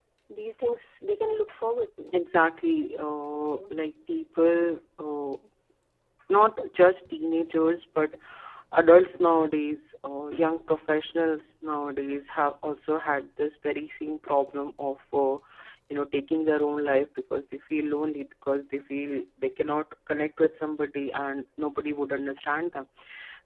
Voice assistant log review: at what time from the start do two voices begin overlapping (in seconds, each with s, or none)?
none